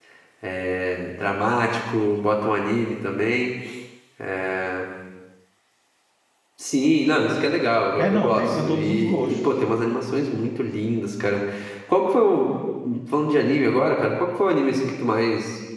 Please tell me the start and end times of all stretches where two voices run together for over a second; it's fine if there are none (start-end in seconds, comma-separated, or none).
8.0-9.4